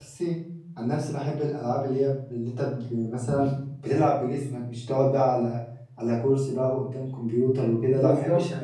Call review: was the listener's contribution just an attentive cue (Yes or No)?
No